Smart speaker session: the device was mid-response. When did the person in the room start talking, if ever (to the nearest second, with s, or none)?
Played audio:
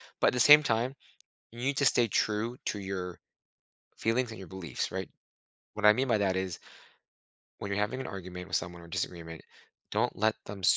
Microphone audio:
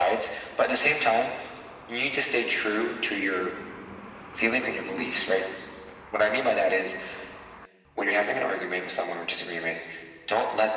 none